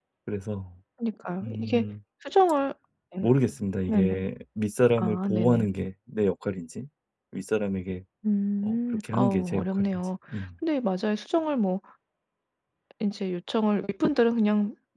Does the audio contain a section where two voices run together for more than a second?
Yes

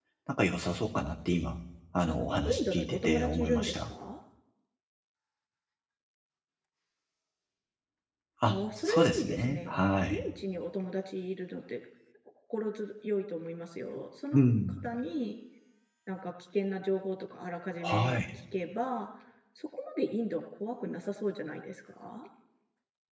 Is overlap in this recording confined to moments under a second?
No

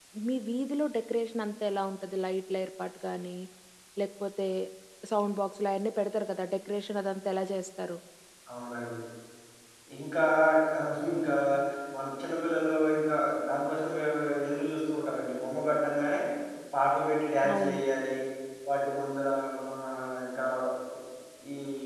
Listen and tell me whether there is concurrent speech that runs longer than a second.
No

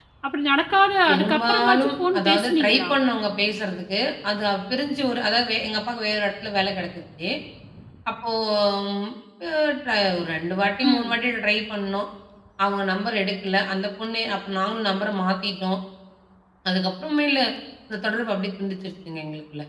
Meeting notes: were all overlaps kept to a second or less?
No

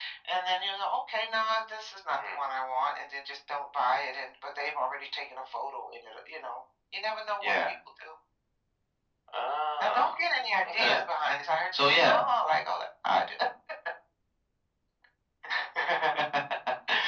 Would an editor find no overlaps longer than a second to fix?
Yes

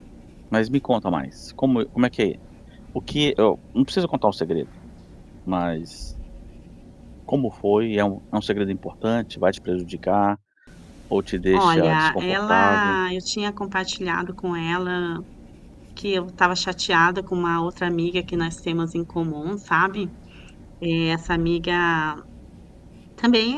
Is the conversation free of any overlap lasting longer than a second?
No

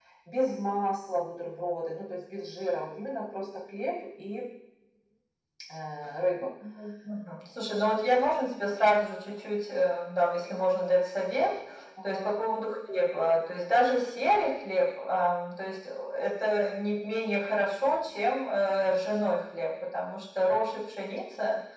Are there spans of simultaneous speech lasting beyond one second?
No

